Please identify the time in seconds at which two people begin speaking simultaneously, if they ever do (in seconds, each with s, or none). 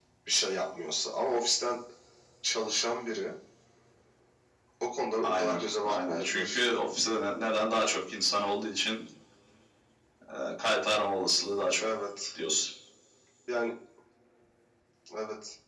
5.2 s